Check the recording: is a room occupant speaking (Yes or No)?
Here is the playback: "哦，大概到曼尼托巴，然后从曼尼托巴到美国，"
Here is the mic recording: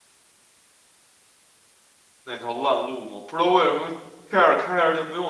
Yes